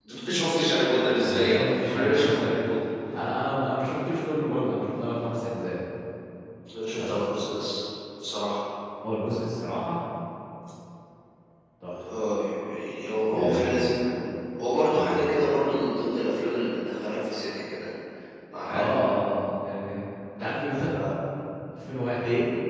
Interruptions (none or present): present